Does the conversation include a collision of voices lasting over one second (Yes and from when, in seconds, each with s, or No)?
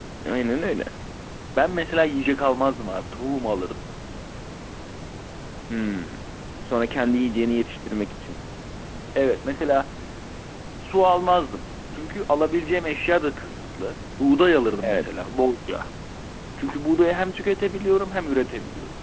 No